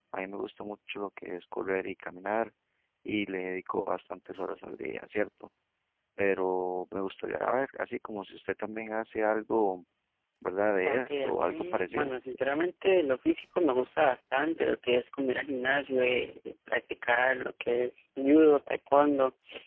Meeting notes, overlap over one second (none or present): present